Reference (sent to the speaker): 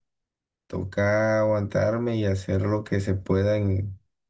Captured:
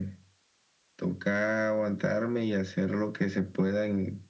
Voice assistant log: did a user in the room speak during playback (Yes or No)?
No